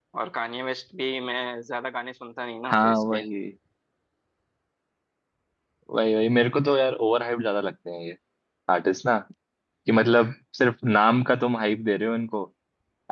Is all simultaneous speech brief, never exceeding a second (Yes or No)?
Yes